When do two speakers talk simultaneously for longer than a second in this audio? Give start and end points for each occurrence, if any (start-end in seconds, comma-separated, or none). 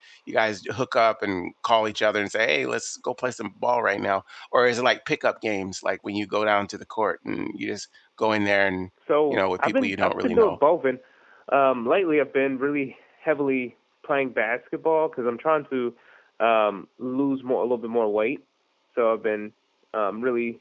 9.3-10.6